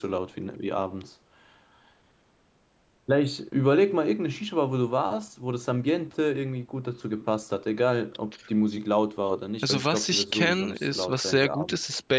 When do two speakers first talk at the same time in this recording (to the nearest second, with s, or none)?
10 s